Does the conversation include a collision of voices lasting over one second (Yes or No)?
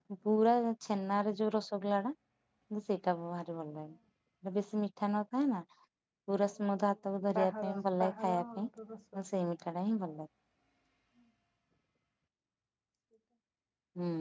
Yes